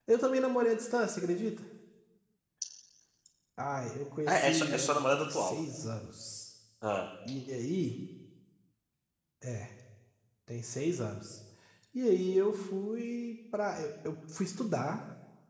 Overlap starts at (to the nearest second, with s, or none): 4 s